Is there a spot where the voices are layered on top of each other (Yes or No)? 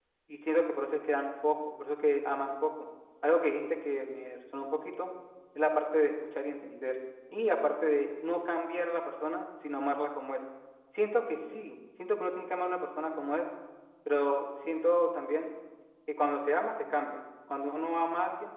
No